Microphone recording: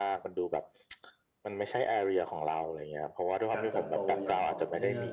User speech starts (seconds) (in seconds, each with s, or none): 3.5 s